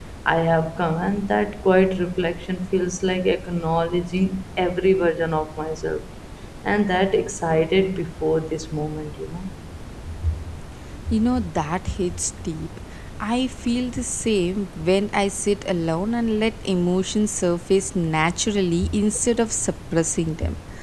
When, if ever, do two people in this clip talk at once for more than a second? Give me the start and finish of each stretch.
none

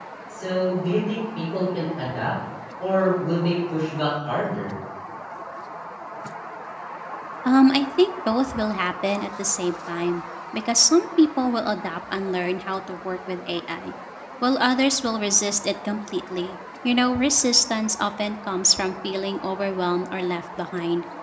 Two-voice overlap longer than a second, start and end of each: none

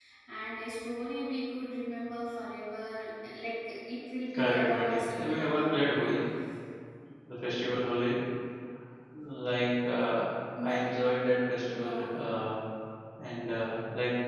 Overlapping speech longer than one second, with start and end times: 4.3-6.2

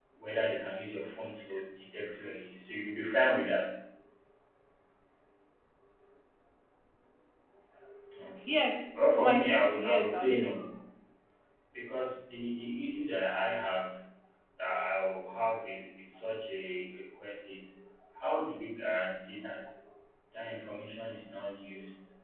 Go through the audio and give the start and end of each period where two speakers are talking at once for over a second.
8.9-10.7

